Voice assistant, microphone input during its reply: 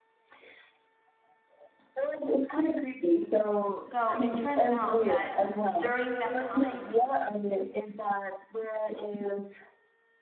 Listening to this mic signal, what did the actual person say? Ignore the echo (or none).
so it turns out that during that time